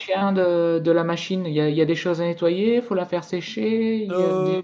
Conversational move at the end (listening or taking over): taking over